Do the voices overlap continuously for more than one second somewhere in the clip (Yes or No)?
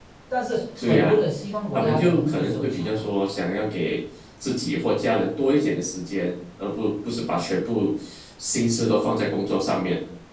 Yes